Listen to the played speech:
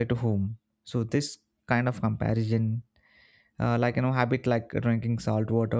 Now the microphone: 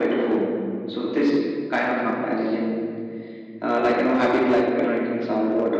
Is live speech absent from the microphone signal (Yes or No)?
Yes